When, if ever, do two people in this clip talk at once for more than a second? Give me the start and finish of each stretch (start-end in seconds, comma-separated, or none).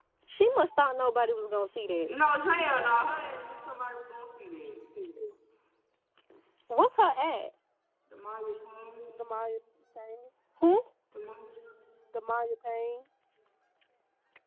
none